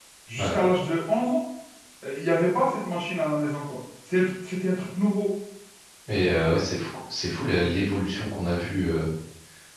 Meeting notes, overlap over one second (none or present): none